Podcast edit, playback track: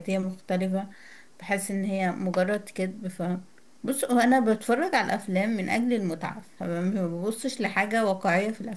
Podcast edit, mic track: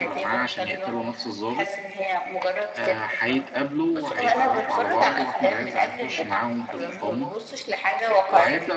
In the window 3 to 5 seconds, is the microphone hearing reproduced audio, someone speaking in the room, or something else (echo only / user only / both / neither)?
both